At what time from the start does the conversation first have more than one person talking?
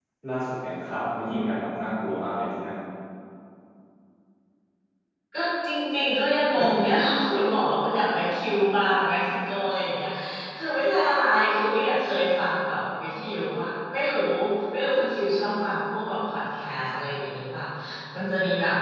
none

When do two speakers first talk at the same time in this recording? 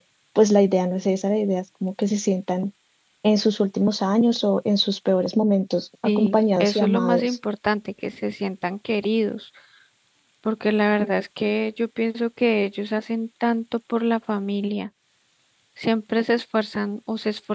6.0 s

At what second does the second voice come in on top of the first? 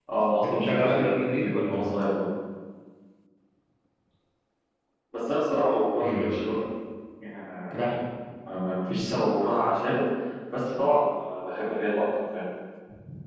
0.5 s

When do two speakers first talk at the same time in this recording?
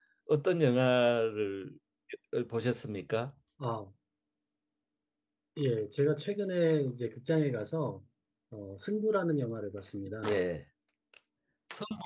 none

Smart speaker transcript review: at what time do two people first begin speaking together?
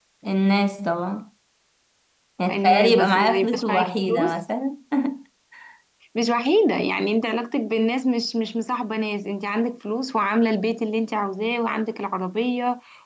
2.5 s

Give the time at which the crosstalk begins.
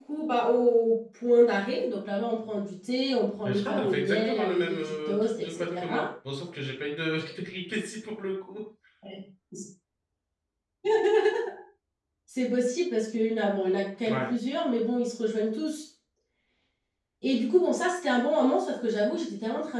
3.5 s

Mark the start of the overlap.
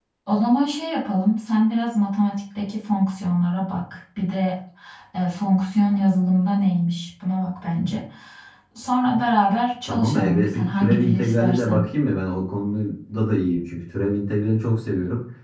9.8 s

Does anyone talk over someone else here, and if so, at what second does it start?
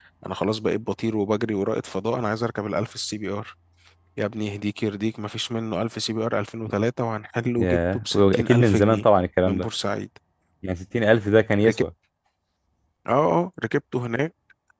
7.6 s

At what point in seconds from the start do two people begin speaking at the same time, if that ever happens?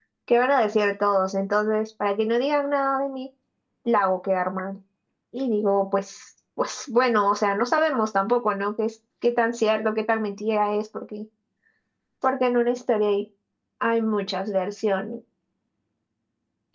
none

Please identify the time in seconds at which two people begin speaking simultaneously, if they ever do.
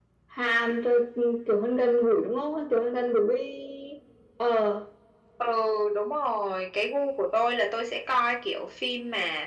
none

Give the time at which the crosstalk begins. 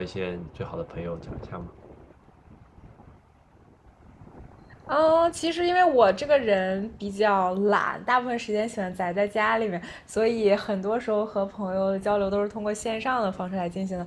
none

